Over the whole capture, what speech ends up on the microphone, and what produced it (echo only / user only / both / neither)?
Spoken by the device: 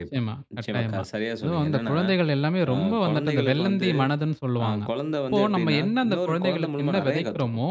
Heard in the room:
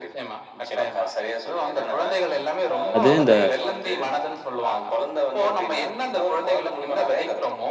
both